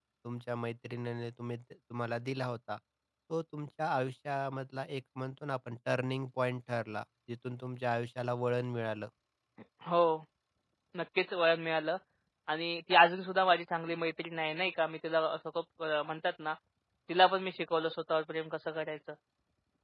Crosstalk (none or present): none